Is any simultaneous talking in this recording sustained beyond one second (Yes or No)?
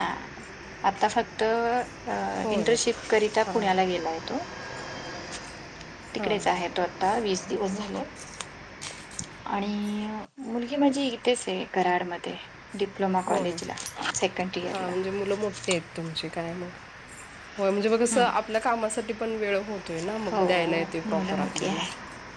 Yes